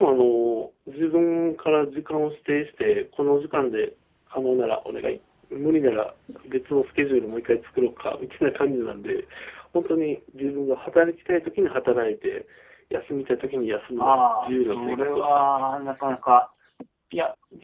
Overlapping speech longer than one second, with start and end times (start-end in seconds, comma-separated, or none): 14.0-15.6